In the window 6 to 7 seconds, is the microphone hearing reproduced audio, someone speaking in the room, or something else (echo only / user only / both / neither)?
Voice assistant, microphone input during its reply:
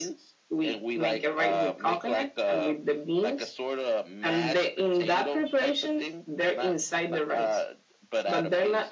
echo only